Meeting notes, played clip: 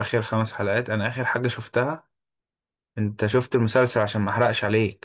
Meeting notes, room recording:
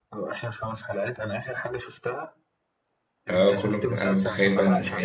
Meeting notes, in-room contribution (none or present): present